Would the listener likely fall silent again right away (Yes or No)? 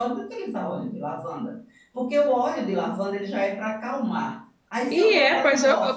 No